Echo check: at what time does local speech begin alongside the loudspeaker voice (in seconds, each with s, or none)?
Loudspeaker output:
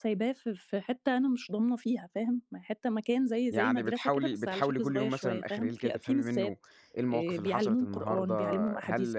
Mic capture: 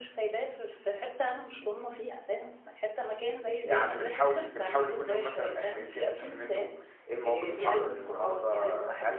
7.8 s